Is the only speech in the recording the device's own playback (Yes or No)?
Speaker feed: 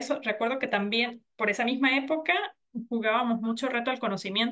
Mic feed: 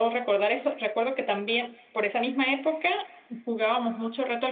Yes